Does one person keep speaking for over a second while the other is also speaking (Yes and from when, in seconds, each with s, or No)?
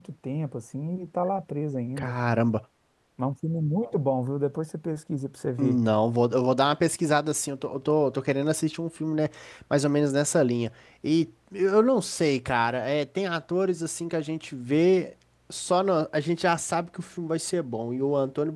No